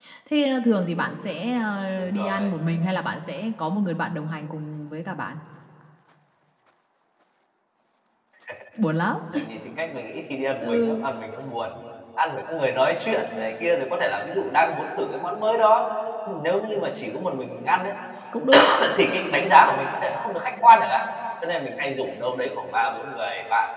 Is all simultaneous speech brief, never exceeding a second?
Yes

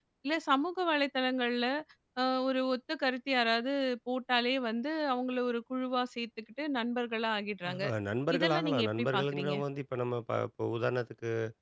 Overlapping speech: Yes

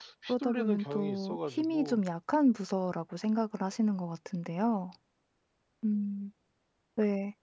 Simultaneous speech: Yes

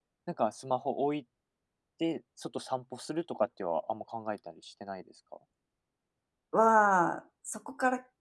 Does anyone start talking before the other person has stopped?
No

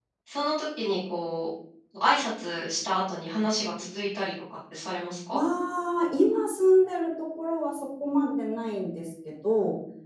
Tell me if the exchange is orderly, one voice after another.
Yes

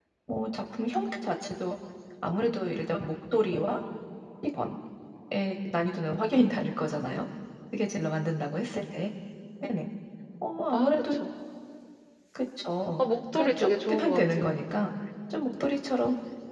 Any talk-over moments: Yes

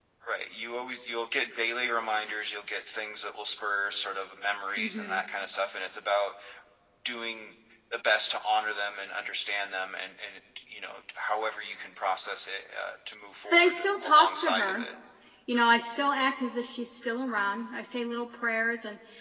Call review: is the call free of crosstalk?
No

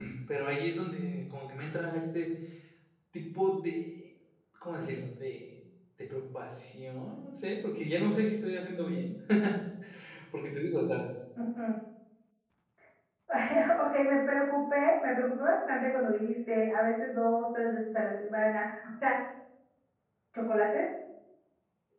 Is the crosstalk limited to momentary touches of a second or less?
Yes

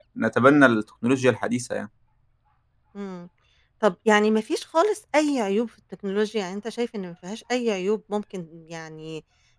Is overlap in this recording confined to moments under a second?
Yes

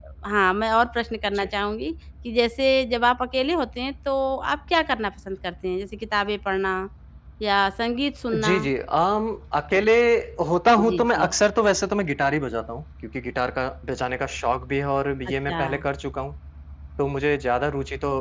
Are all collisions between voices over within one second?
Yes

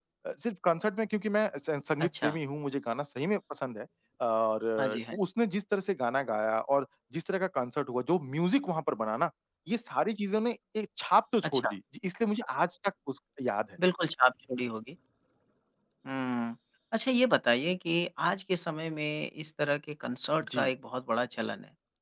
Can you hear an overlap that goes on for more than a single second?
No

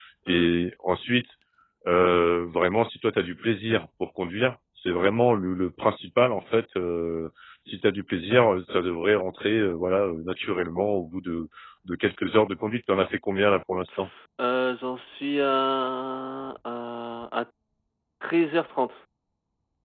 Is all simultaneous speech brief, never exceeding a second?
Yes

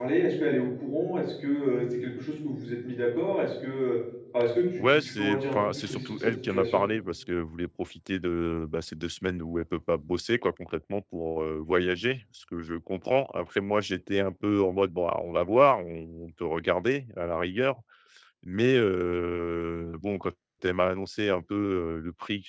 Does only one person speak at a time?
No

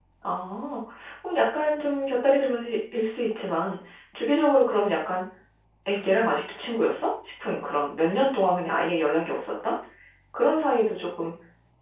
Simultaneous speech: No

